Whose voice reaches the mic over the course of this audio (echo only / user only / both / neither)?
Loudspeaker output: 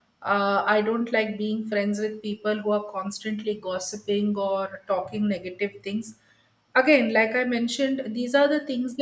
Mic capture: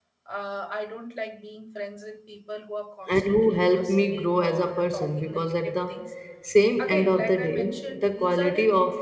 both